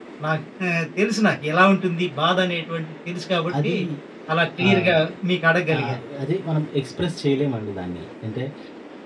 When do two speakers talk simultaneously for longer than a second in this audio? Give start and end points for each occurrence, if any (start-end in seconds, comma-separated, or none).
none